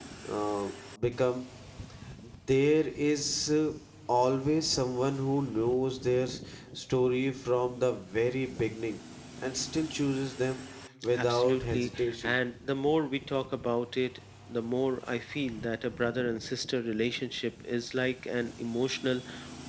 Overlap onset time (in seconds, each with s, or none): 11.2 s